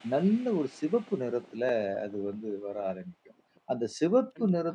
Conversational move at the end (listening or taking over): listening